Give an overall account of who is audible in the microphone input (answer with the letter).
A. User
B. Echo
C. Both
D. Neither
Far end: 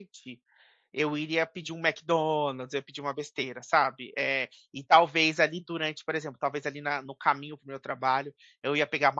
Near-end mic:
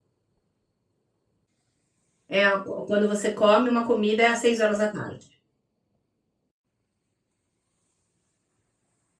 A